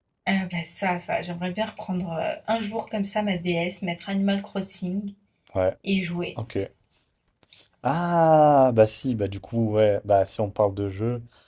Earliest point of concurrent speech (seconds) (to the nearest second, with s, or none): none